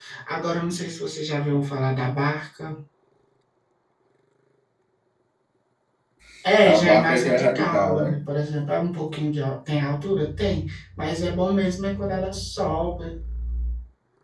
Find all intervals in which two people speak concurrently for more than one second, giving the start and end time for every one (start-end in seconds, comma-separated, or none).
6.6-8.1